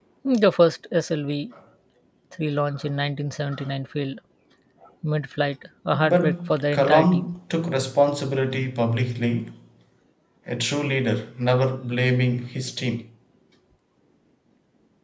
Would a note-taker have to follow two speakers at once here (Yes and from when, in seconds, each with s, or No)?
Yes, from 5.9 s